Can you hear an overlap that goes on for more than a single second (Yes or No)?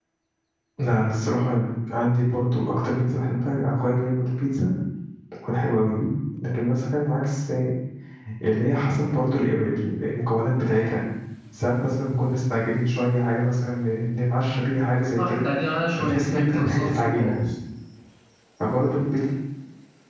Yes